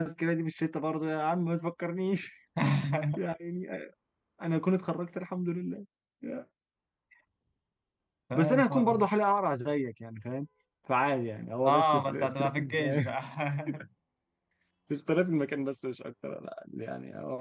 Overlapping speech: Yes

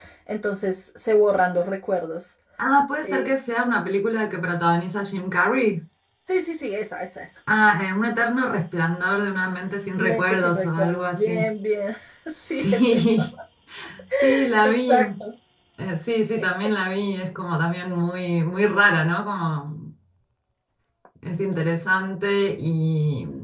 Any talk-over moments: Yes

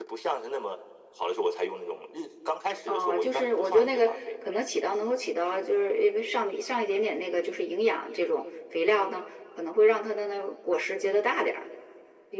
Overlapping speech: Yes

